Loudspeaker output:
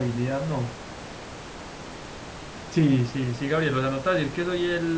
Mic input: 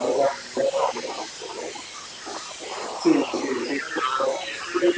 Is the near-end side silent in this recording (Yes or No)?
Yes